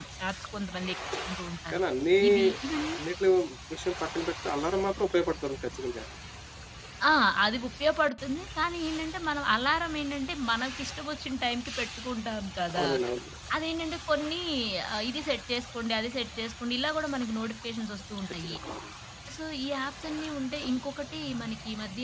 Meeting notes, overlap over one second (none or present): none